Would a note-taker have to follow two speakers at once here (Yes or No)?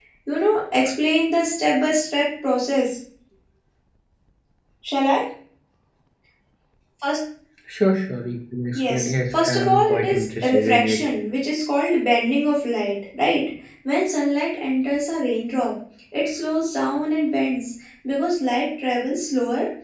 Yes